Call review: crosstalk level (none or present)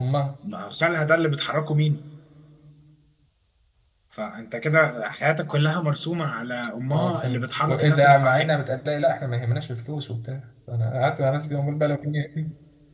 present